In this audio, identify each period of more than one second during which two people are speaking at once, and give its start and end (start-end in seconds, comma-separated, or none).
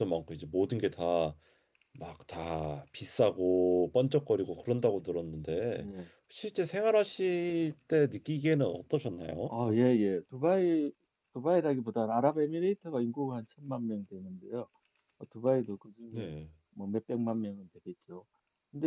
none